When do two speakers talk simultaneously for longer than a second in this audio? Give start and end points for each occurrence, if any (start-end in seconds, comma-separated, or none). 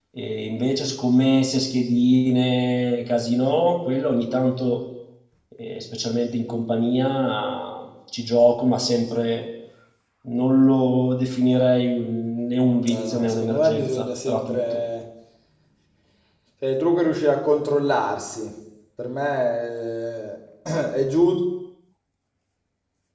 12.9-14.8